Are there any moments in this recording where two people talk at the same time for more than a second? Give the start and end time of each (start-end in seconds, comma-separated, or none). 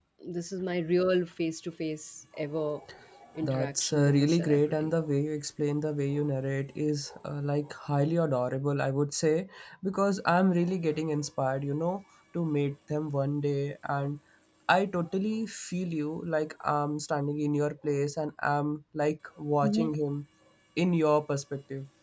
3.5-4.9